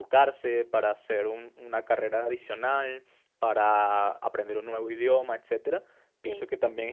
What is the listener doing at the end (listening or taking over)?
listening